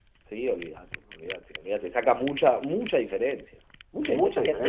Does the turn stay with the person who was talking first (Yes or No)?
No